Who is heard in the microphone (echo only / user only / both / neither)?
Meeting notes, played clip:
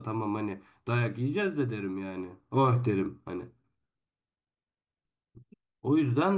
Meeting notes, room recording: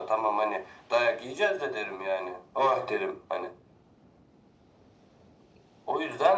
echo only